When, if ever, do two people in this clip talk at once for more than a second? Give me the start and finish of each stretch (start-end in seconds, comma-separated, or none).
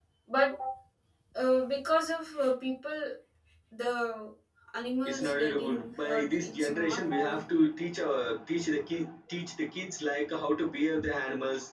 5.0-7.4